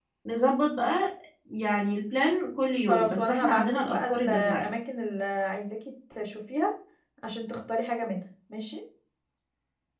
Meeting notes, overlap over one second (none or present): present